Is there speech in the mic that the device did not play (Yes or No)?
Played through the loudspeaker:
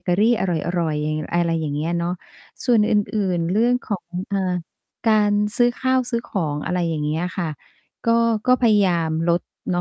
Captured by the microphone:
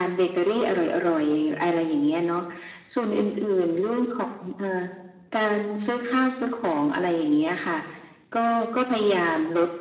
No